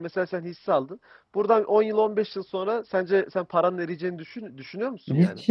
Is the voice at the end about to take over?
Yes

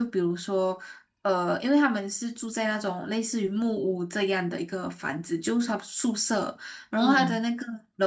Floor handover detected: No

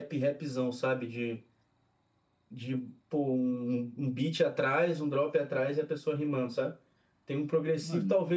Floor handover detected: No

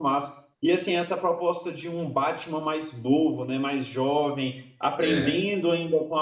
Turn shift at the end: No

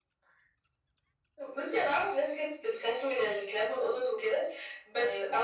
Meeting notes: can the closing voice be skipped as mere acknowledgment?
Yes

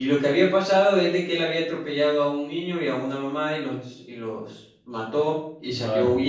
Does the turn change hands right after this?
No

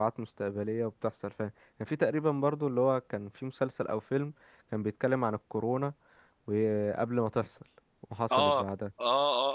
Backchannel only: No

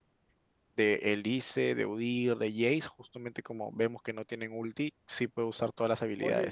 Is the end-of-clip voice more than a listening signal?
Yes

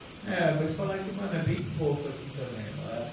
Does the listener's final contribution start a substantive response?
No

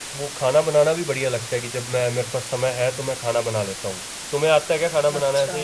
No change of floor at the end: No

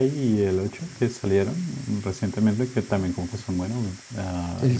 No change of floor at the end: No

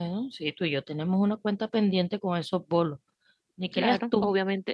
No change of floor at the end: No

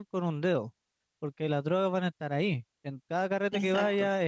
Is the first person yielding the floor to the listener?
No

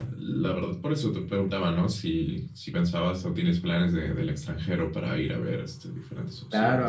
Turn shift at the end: Yes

